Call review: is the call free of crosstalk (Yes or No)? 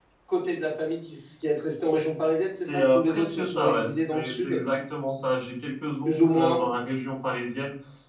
No